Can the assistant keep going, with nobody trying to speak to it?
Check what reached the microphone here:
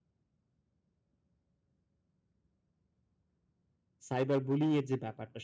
No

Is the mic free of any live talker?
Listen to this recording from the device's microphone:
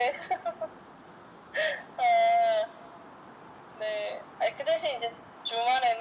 Yes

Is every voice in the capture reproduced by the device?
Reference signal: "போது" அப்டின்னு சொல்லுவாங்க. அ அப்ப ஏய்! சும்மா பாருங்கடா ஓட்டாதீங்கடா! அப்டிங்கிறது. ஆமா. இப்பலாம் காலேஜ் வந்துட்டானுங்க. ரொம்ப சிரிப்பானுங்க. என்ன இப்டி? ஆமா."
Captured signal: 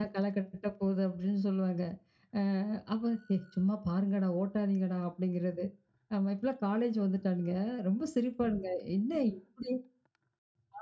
Yes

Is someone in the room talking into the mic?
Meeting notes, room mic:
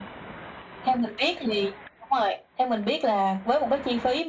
No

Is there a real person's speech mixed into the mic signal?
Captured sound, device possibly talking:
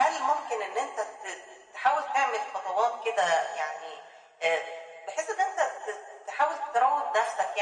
No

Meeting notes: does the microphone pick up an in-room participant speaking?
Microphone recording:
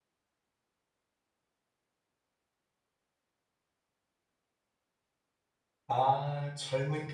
Yes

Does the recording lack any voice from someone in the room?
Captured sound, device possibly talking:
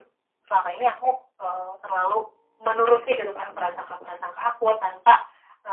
No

